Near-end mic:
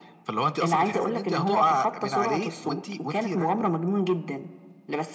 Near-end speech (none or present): none